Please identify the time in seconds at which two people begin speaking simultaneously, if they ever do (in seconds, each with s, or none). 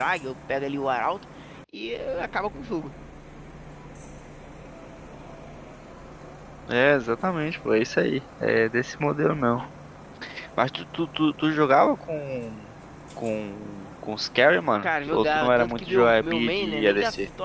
14.8 s